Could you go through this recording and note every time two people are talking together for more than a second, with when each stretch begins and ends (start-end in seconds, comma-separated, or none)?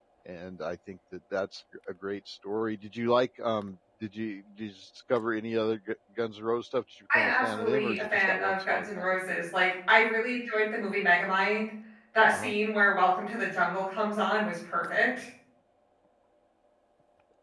7.2-9.4